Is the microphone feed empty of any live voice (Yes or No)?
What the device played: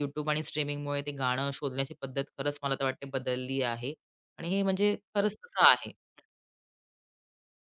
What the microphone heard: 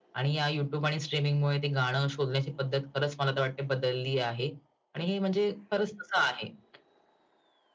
Yes